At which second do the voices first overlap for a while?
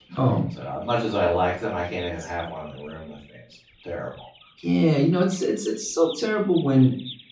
none

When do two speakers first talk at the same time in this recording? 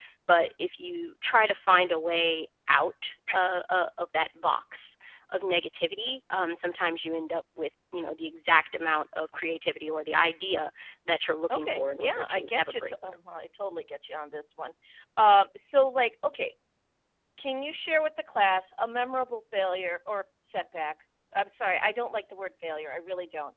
11.5 s

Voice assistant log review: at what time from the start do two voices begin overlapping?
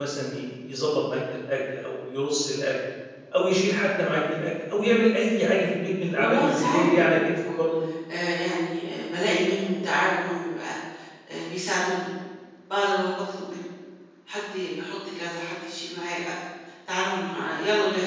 6.1 s

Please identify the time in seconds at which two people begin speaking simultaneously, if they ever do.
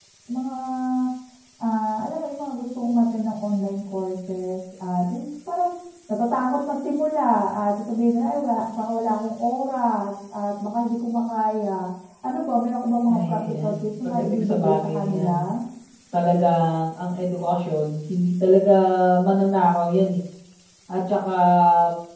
13.1 s

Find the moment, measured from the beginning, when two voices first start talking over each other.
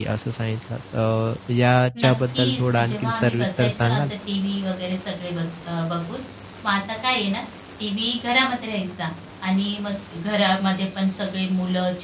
2.0 s

